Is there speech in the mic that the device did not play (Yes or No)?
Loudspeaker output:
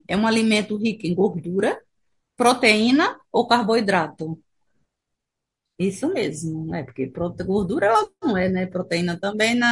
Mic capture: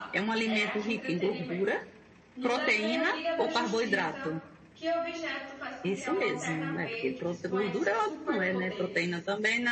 Yes